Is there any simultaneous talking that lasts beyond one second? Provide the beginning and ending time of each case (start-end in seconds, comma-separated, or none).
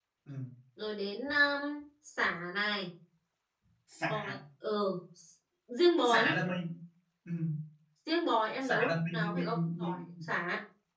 8.6-10.0